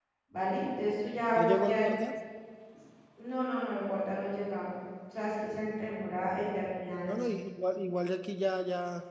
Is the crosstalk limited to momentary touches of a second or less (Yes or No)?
Yes